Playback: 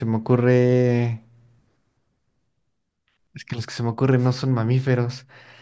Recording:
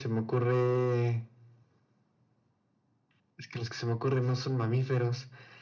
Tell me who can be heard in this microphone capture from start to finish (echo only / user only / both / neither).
echo only